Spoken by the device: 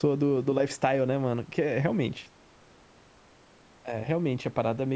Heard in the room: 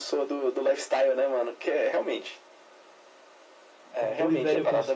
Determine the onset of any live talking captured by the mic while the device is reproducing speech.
4.0 s

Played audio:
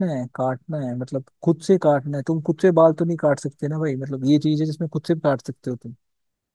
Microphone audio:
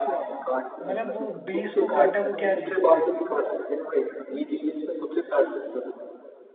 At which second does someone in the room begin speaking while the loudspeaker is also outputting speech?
0.8 s

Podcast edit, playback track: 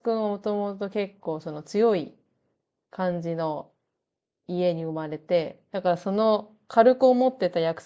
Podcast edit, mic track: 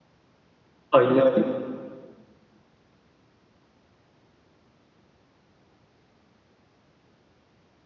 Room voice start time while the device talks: 0.9 s

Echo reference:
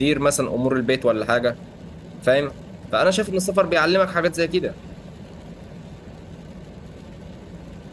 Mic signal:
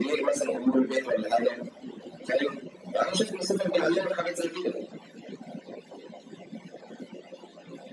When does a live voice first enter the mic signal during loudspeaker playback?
none

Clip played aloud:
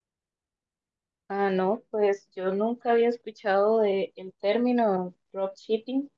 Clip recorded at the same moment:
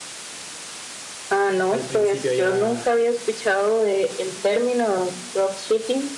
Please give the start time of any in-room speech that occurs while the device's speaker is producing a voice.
1.7 s

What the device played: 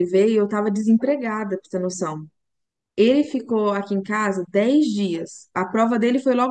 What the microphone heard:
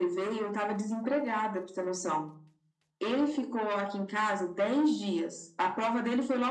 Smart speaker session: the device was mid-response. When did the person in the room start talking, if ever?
none

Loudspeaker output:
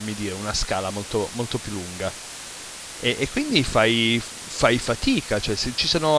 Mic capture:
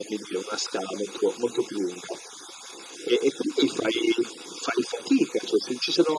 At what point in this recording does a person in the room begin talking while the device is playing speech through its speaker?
none

